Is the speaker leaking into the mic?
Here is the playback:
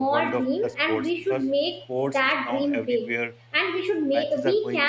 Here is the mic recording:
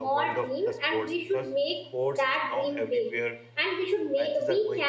Yes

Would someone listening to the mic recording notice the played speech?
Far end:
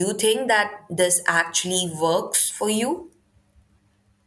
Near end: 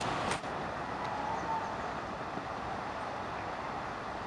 No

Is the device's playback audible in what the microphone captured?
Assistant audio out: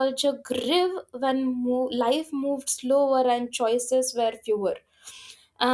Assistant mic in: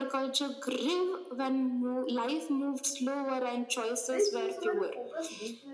Yes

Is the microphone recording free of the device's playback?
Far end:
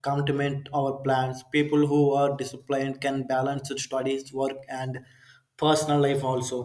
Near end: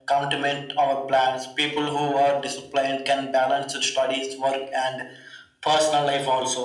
No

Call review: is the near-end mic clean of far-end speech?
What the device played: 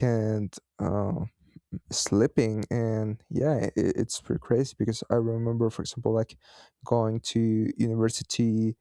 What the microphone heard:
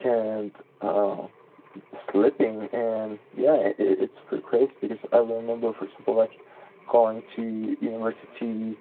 No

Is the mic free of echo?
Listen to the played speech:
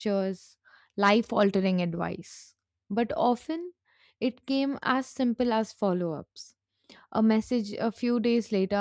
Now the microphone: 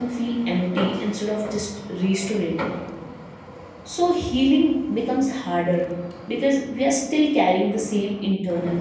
Yes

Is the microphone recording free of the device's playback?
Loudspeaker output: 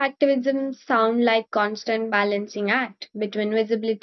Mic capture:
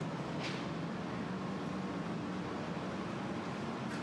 Yes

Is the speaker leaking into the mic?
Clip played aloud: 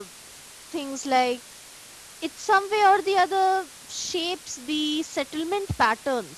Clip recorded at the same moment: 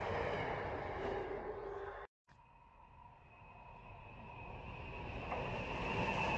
No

